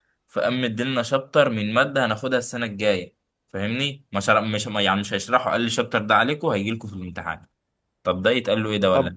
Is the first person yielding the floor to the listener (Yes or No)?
Yes